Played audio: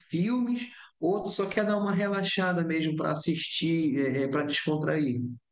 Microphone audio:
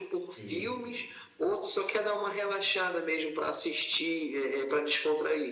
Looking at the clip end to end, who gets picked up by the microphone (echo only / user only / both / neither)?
both